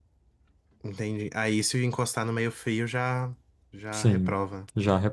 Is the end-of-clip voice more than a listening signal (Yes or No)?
Yes